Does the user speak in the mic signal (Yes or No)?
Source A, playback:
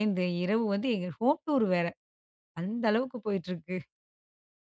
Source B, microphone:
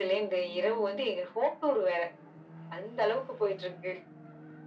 No